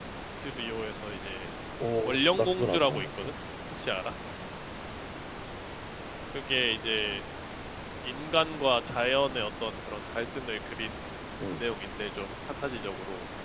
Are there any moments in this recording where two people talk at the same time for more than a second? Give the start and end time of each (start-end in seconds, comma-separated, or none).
2.0-3.3